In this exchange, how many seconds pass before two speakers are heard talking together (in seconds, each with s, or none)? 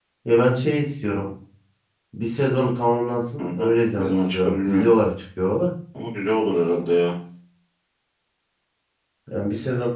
3.4 s